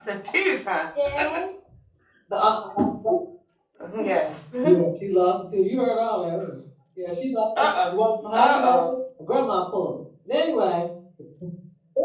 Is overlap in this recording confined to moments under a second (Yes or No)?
Yes